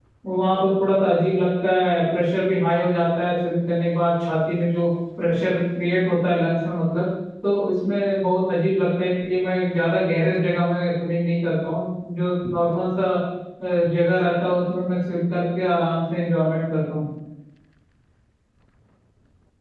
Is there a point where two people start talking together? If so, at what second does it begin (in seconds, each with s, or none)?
none